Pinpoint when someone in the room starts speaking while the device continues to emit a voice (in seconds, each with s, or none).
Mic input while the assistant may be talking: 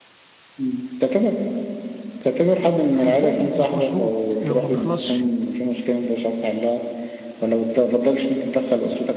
2.9 s